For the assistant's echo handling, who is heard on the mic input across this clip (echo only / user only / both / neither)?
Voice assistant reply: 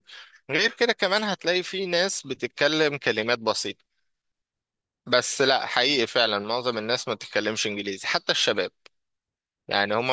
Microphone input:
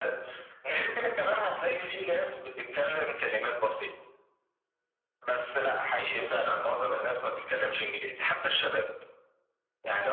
echo only